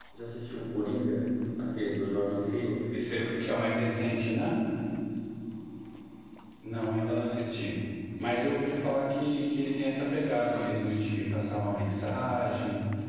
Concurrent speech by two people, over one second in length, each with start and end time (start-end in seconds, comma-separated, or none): none